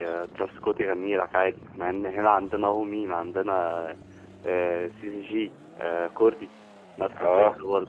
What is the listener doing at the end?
taking over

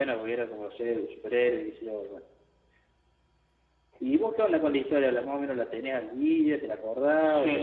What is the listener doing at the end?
taking over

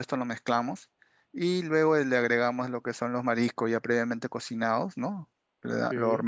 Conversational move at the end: listening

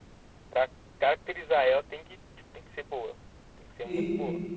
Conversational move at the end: taking over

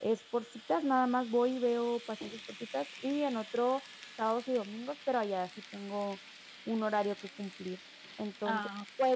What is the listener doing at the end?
listening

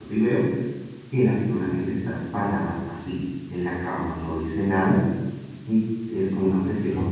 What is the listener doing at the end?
listening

